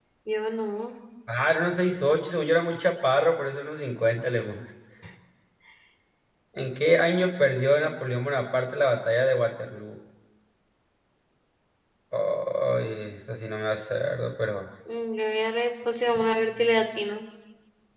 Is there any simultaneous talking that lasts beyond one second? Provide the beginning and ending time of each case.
none

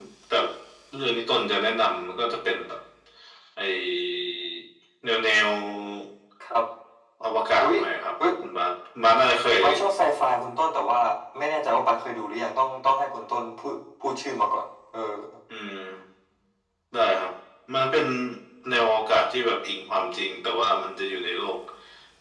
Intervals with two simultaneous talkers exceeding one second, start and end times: none

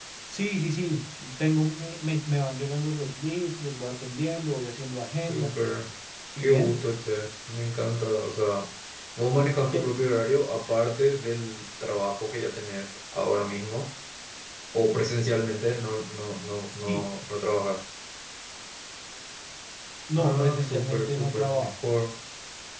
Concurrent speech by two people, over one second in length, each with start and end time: 20.2-21.9

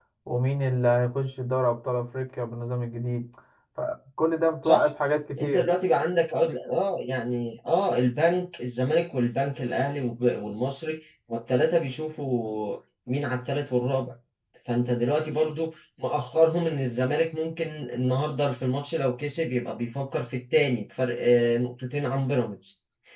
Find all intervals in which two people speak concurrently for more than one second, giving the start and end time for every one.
none

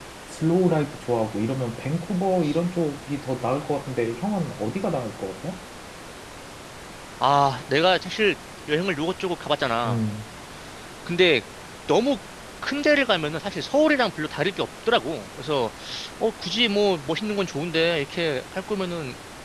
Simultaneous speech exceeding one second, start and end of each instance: none

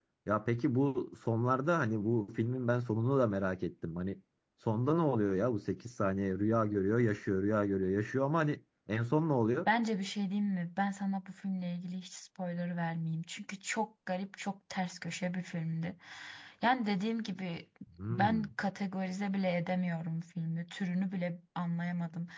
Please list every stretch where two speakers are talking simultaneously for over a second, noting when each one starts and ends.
none

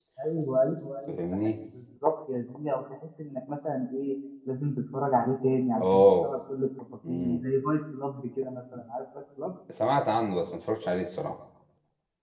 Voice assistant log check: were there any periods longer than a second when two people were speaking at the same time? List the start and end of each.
none

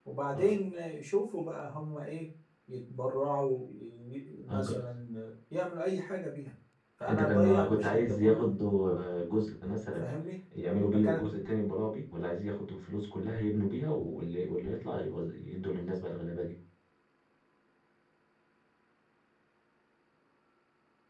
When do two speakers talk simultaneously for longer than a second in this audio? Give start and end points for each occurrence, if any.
7.1-8.5

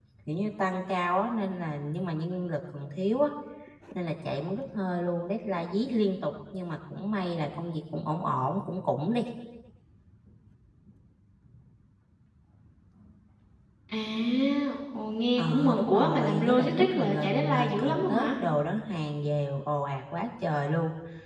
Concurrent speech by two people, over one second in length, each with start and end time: 15.4-18.3

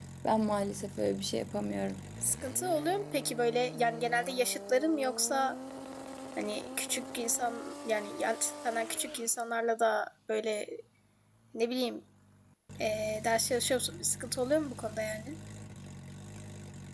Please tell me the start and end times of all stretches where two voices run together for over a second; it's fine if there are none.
none

